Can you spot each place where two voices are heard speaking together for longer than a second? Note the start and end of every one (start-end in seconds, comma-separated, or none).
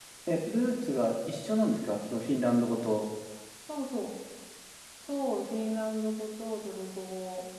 none